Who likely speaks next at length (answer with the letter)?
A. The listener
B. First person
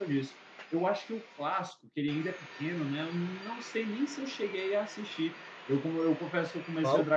B